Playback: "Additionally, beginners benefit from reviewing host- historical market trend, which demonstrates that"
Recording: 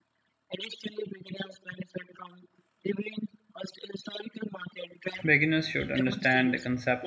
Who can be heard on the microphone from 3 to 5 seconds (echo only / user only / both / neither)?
echo only